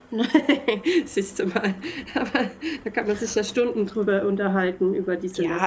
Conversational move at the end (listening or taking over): taking over